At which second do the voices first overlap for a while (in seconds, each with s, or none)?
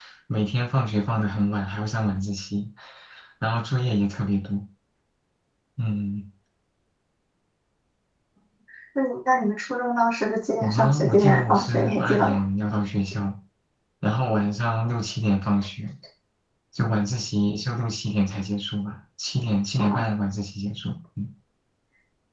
10.6 s